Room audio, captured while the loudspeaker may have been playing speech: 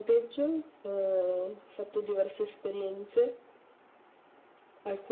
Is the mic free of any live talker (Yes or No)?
Yes